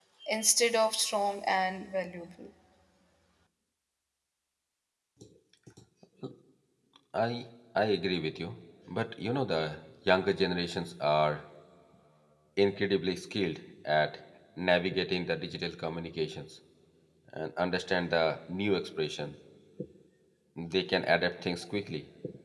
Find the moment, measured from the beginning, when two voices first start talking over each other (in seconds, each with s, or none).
none